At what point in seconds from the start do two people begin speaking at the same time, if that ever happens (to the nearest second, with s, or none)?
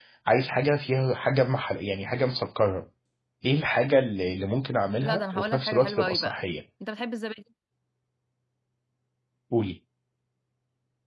5 s